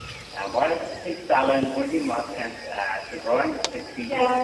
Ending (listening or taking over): taking over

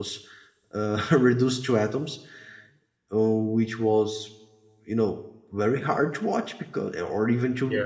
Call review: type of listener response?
listening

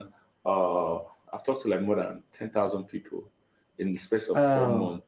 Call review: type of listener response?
listening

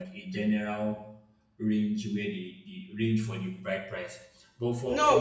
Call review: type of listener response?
taking over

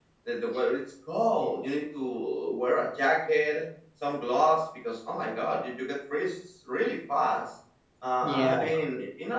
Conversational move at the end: listening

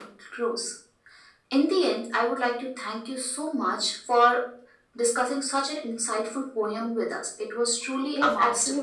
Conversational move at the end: taking over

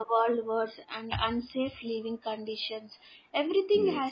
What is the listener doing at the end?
listening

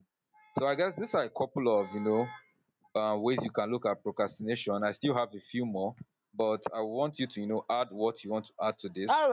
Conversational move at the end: taking over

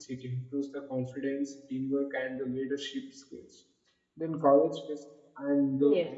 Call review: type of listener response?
listening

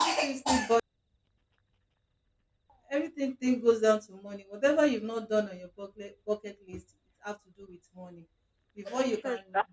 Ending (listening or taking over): listening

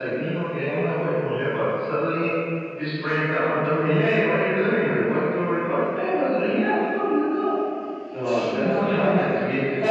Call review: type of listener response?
taking over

